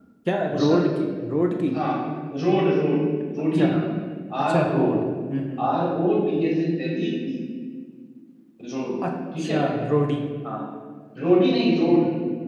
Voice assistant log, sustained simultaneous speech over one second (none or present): none